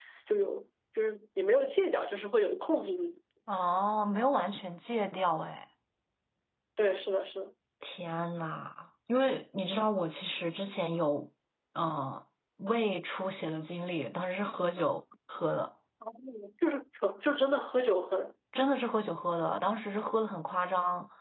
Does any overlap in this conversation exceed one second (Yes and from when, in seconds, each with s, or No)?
No